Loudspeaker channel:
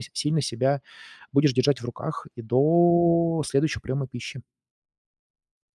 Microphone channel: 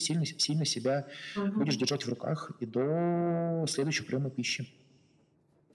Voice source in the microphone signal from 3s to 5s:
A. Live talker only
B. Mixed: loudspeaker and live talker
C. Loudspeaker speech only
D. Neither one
C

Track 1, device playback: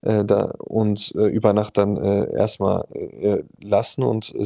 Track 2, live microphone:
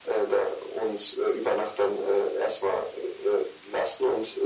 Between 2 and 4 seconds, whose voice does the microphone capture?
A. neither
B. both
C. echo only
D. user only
C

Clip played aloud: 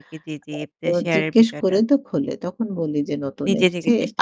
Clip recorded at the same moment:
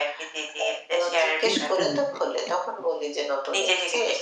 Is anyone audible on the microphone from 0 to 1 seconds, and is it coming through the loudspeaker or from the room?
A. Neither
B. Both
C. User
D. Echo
D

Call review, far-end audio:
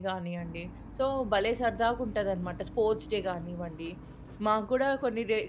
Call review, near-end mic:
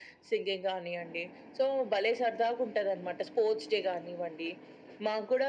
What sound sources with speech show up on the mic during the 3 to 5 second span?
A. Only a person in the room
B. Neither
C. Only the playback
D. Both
C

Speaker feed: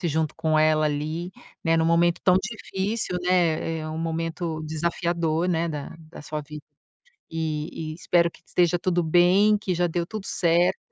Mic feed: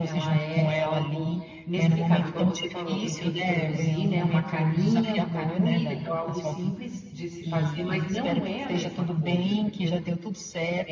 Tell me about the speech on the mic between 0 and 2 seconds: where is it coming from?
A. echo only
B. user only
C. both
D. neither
C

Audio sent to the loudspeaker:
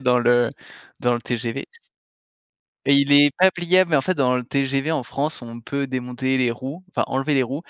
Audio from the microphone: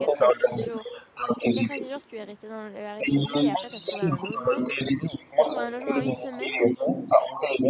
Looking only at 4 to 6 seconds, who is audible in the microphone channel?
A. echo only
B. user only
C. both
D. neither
C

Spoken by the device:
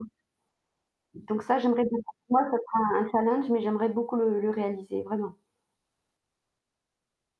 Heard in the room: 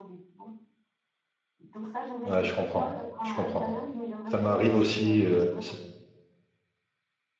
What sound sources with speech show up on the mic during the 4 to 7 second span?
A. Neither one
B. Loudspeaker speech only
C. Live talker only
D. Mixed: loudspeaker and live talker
D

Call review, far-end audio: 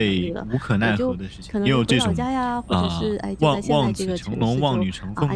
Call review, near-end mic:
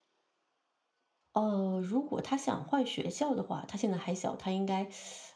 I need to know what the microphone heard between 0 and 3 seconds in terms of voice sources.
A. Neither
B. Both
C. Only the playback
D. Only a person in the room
D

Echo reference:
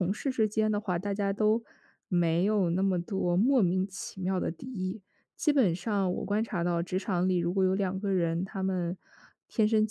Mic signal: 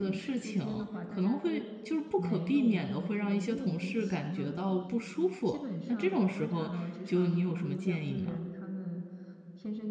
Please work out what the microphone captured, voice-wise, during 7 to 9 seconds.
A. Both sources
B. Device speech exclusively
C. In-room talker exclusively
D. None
A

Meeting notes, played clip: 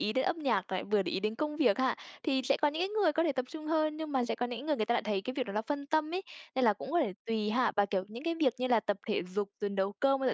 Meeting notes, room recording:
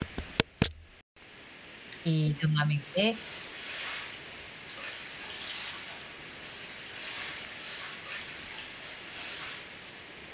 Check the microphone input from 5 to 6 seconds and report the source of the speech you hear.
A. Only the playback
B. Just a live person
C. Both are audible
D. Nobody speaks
D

